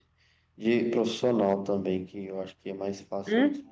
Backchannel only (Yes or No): No